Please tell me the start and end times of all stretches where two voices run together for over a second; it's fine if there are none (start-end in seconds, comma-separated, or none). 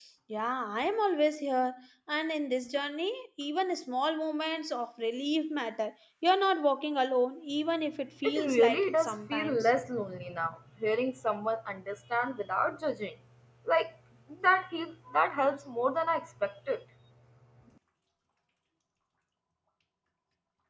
8.2-9.7